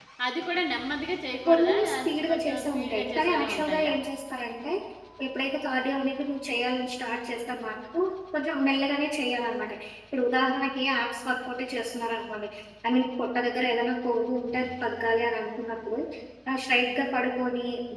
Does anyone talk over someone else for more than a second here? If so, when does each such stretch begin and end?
1.5-3.9

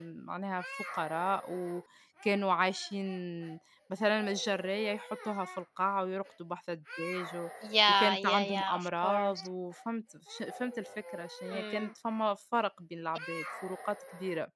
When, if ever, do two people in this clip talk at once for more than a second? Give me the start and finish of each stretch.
7.9-9.4

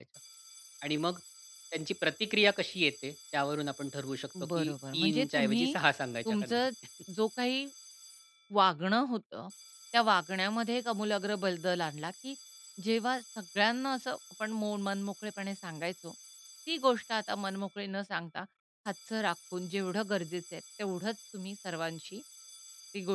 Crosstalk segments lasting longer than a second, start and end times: 4.5-5.8

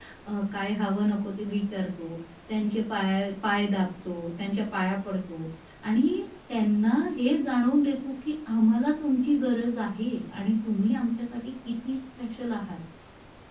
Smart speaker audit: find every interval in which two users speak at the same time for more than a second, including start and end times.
none

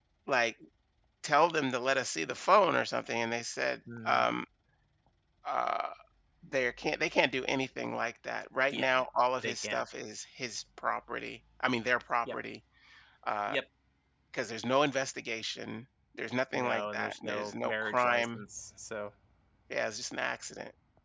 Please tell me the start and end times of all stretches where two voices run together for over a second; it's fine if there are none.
16.5-18.4

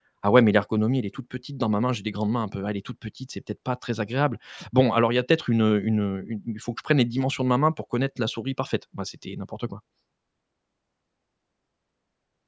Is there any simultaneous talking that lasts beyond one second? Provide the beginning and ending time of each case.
none

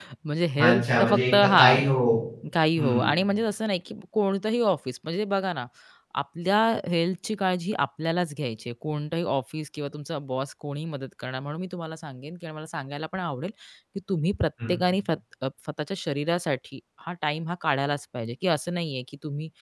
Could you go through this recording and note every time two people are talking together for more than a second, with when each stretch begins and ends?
0.6-1.8

